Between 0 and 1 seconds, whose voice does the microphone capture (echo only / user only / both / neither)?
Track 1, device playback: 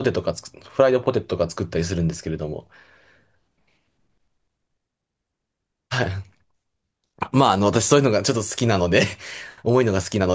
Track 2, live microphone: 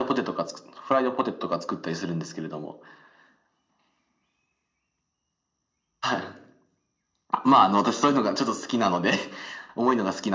echo only